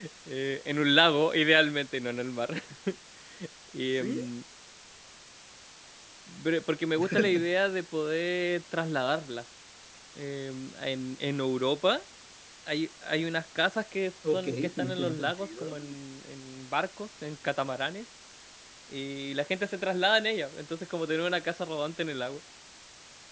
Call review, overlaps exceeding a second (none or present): present